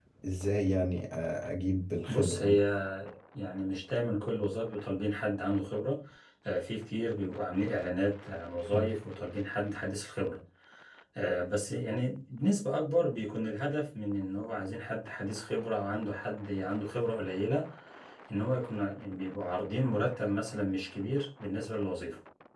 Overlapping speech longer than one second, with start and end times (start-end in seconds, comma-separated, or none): none